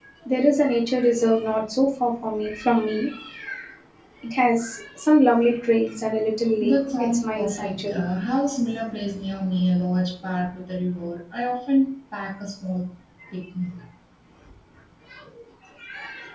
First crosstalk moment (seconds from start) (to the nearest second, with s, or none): 7 s